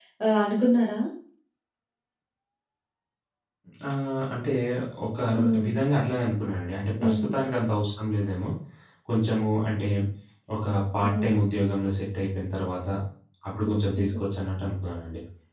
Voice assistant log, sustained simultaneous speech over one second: none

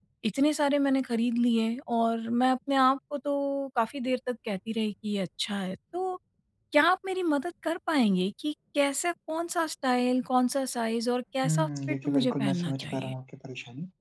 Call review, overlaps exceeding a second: present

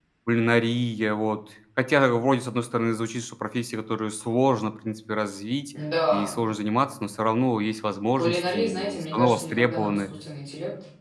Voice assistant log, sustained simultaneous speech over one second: present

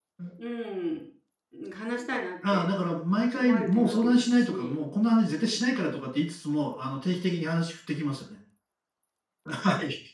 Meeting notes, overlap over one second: present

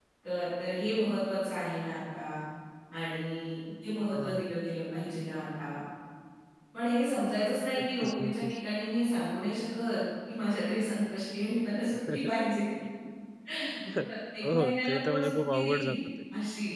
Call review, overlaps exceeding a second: present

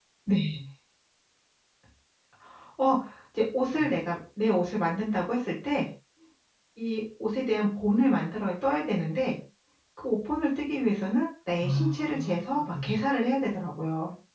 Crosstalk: present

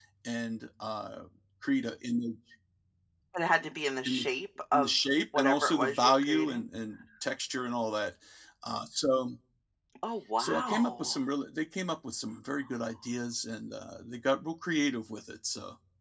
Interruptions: present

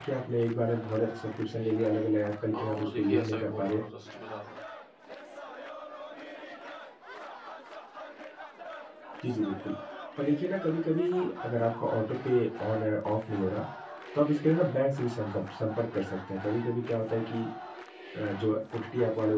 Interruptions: present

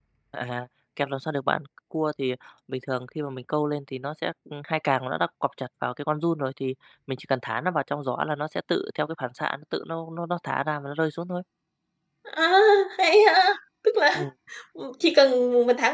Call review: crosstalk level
none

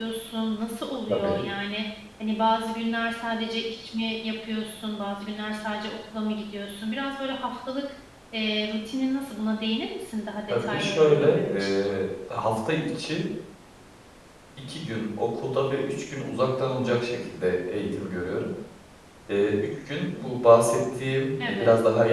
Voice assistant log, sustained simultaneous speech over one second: present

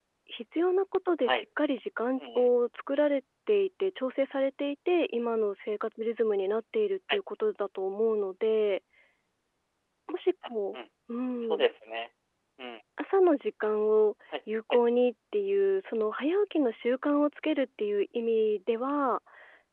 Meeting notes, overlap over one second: none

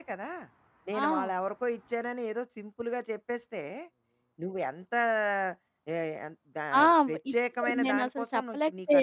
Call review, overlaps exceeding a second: present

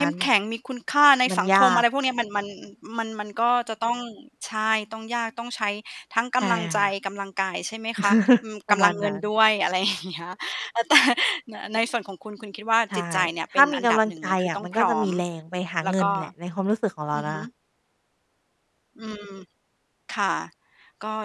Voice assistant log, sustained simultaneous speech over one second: present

